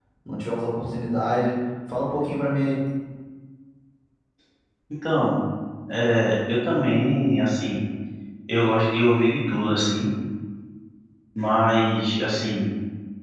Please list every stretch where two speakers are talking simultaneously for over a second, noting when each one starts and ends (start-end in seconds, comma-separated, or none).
none